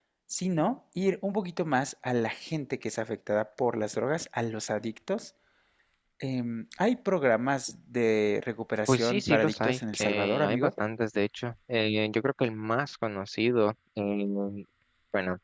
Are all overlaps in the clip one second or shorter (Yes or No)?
No